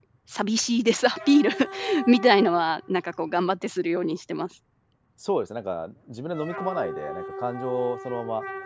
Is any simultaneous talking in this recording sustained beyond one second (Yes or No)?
No